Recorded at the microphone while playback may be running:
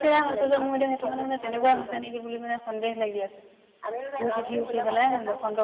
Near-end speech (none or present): present